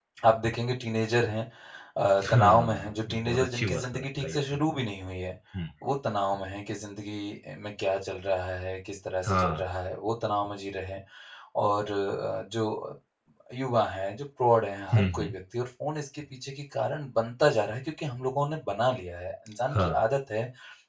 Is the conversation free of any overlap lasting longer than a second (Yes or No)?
No